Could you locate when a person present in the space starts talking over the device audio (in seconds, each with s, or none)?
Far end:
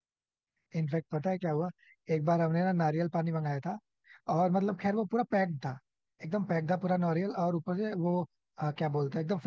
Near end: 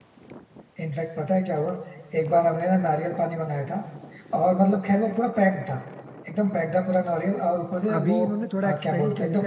8.0 s